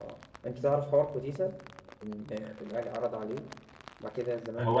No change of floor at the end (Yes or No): No